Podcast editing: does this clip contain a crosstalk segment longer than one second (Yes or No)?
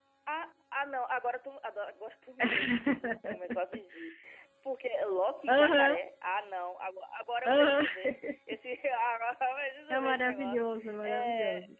Yes